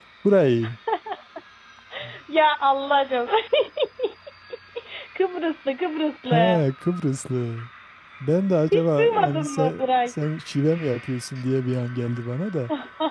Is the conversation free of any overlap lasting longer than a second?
No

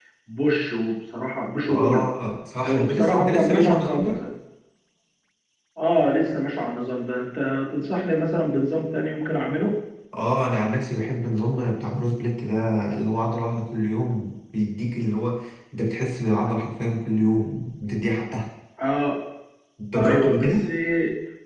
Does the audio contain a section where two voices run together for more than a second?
Yes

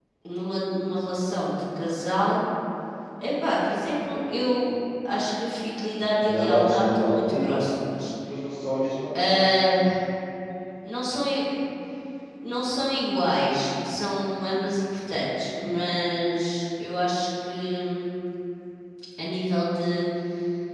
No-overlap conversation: No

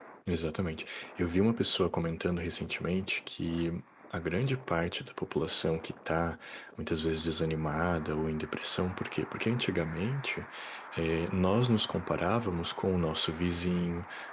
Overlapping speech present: No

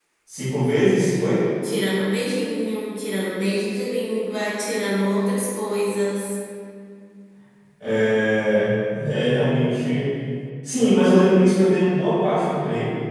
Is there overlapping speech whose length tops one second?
No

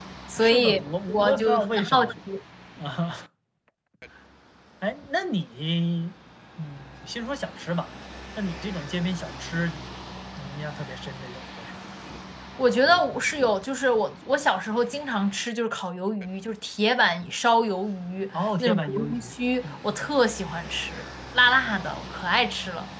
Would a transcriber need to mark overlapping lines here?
Yes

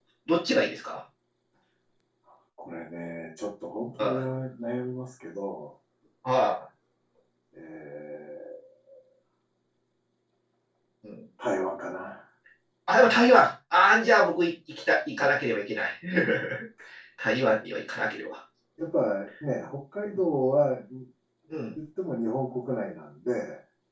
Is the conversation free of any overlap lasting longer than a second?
Yes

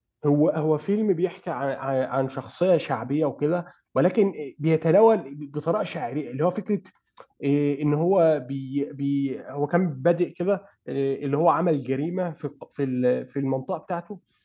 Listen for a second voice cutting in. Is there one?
No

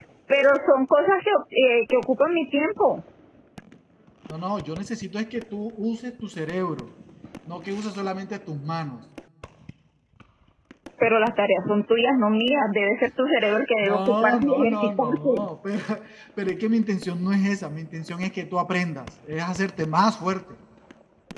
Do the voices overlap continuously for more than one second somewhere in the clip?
Yes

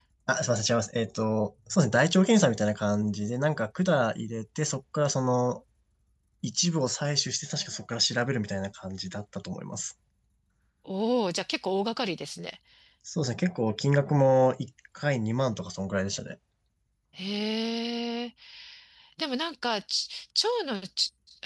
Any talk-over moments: No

